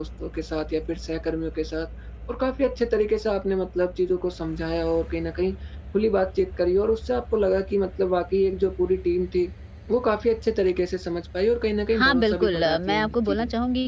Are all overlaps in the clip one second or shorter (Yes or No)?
No